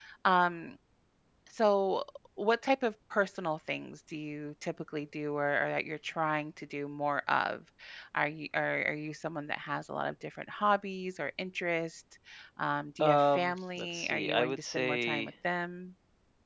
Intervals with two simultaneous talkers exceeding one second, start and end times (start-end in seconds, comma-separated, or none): 13.0-15.3